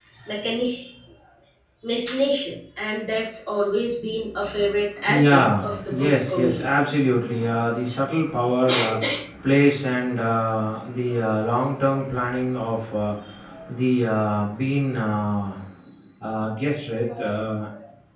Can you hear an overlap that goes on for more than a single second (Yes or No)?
Yes